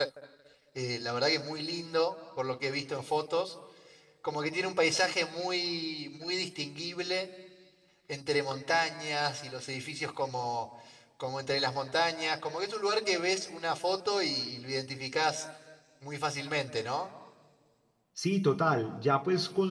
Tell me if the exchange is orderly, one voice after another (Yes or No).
Yes